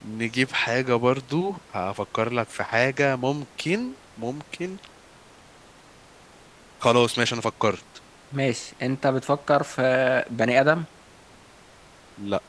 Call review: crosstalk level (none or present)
none